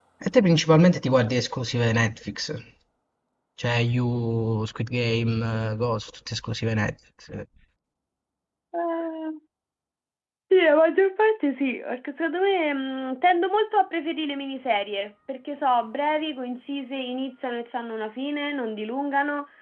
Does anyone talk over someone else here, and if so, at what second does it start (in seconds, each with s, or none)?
none